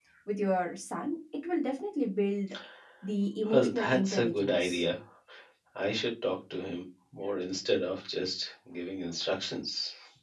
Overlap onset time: 4 s

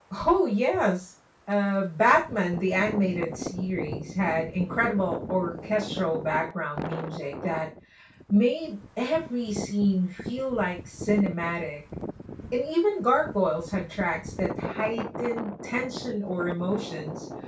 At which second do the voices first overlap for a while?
none

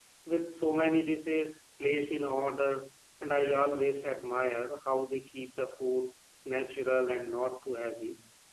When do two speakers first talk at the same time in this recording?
none

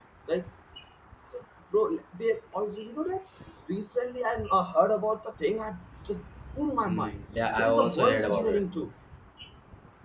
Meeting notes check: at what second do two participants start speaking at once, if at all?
7 s

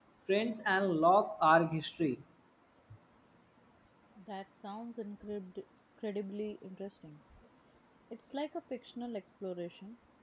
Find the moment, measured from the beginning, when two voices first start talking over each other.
none

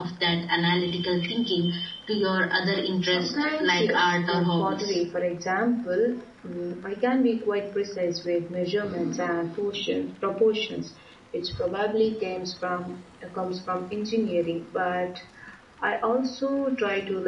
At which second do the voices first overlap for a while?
3 s

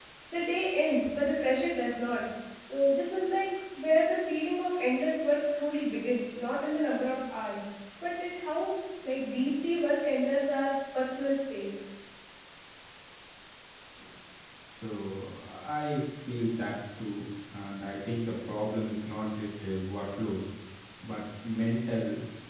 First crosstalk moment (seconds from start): none

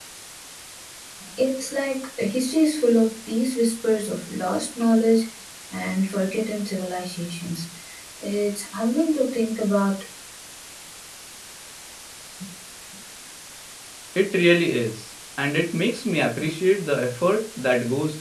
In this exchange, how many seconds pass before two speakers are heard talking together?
none

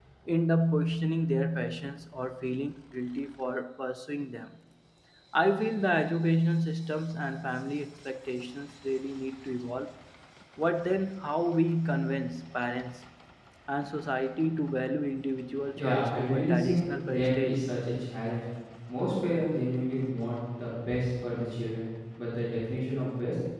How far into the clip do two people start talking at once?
16 s

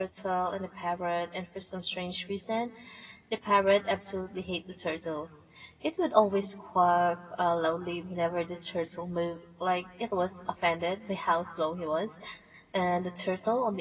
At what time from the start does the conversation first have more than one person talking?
none

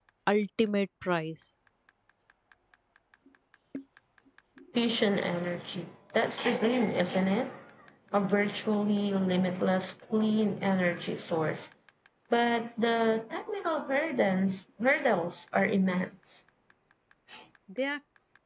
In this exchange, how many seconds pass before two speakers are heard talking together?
none

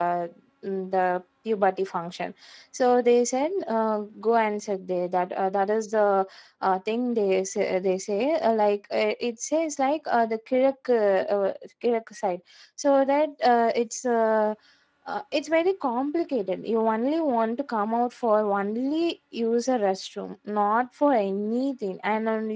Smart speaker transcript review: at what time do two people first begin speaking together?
none

